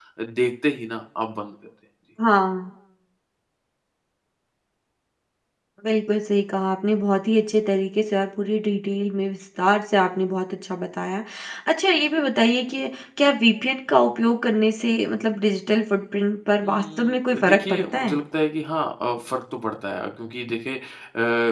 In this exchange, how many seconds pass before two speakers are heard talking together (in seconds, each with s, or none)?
16.6 s